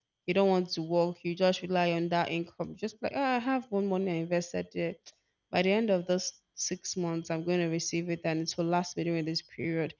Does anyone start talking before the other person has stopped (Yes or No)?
No